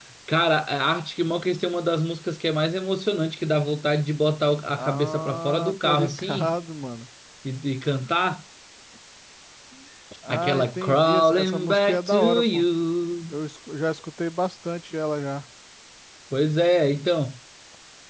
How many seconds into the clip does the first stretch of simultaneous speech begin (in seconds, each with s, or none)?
4.8 s